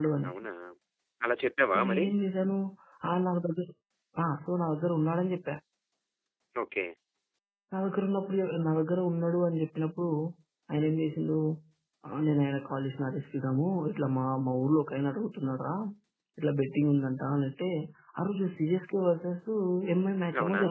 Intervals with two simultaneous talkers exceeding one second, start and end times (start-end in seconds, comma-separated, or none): none